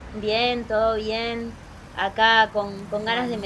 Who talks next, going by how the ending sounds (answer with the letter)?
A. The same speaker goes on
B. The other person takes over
A